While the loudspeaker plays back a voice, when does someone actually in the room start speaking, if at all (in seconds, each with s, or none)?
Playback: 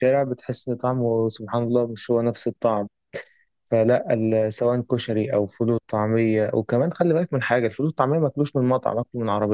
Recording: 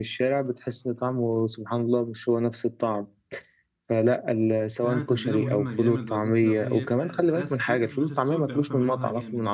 4.8 s